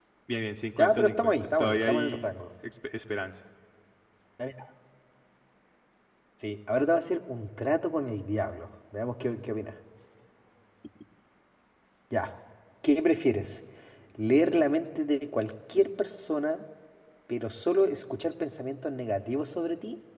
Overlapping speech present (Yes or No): Yes